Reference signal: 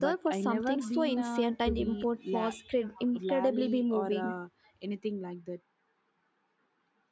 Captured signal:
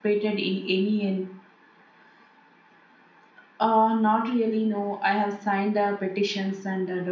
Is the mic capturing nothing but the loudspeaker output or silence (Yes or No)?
No